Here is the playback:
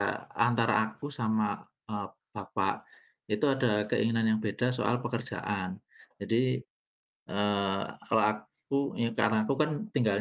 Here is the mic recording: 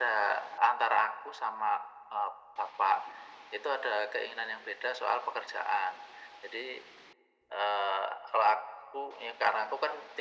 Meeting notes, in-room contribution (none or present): none